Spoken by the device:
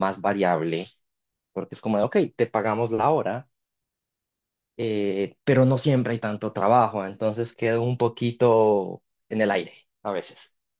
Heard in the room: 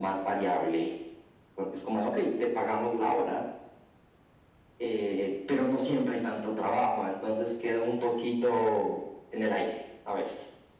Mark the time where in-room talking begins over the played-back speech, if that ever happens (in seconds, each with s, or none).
none